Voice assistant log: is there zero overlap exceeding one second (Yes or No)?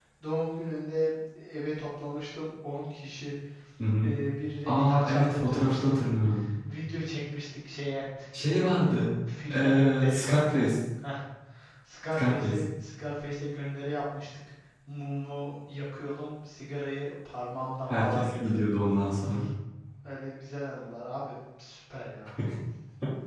No